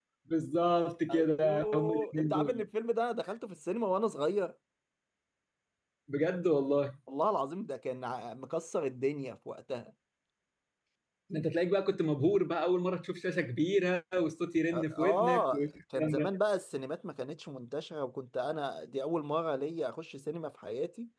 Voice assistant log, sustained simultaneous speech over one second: present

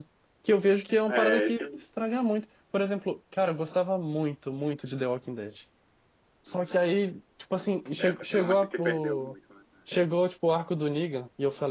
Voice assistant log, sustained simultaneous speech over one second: present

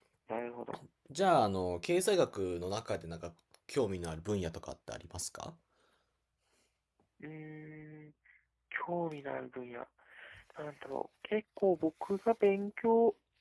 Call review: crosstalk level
none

